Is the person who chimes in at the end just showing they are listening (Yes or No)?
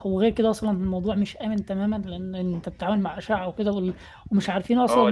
No